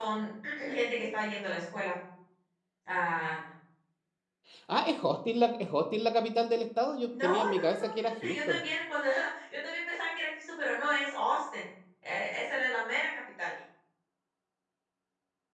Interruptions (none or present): present